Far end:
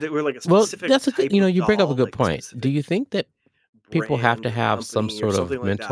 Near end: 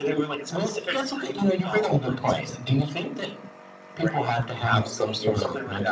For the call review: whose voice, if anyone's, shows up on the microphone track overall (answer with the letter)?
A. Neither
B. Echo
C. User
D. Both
B